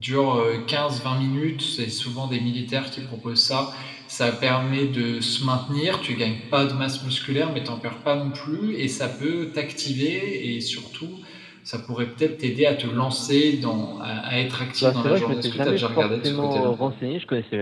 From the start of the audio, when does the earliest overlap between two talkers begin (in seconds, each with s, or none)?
14.8 s